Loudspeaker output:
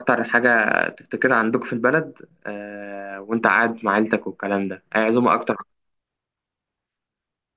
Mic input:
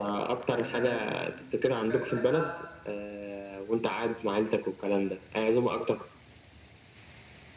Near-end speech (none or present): present